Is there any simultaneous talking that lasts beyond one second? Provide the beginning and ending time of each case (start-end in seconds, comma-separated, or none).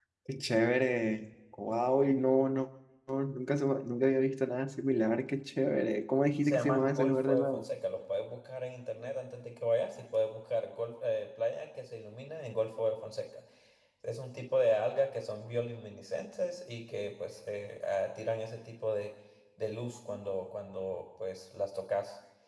6.4-7.7